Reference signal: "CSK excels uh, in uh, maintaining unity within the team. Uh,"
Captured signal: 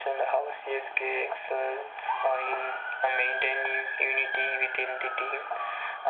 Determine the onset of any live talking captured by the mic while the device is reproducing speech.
none

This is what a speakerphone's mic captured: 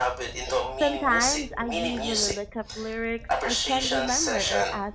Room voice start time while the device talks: 1 s

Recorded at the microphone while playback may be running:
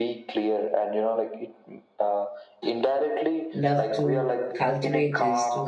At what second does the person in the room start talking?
4 s

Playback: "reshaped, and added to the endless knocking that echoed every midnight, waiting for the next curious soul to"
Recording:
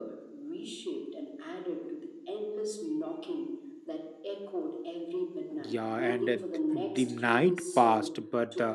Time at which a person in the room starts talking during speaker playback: 6 s

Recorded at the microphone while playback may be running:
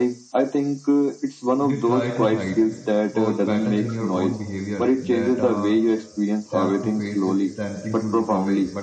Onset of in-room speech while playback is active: 2 s

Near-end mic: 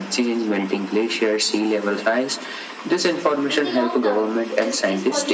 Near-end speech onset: 3 s

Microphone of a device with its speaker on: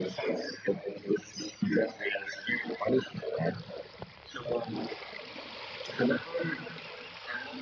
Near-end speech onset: none

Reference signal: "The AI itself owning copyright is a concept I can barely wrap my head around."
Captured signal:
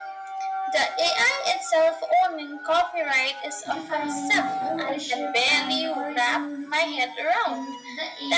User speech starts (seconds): 4 s

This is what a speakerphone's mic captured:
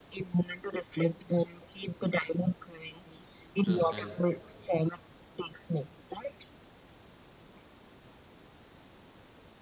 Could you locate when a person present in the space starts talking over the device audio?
4 s

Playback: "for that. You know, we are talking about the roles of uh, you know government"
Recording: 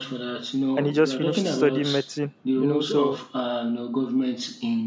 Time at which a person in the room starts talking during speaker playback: 1 s

